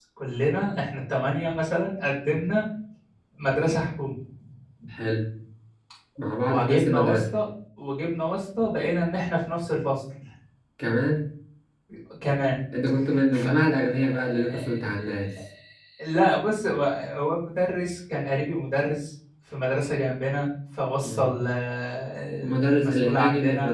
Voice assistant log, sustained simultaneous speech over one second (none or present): present